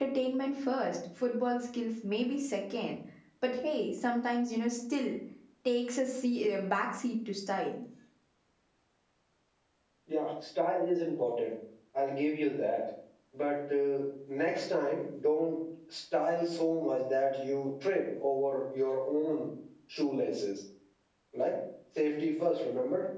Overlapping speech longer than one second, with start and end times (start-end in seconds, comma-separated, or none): none